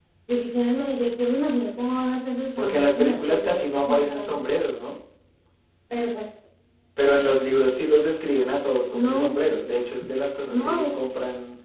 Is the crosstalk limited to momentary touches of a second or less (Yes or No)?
No